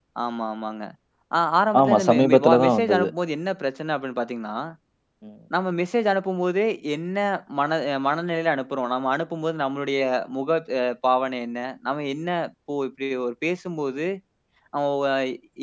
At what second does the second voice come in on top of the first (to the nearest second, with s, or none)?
2 s